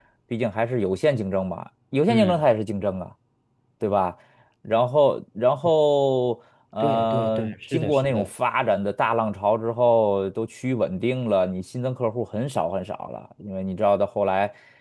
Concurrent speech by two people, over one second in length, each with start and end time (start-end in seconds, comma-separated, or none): 6.8-8.3